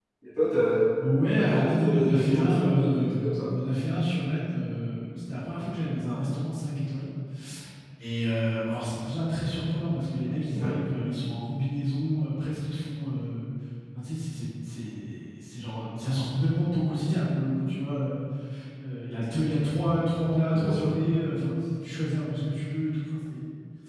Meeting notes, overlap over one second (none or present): present